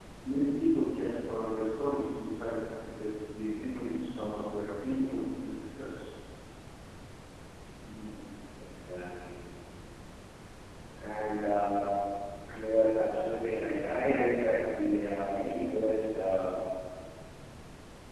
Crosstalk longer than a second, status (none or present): none